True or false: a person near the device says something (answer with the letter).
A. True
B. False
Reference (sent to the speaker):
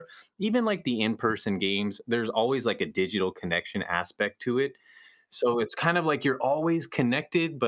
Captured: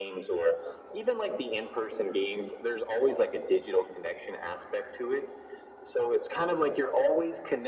B